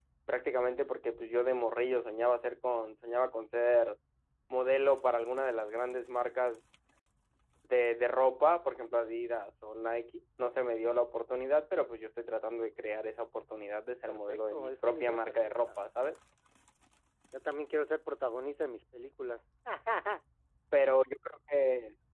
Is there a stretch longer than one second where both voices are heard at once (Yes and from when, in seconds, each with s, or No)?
Yes, from 14.0 s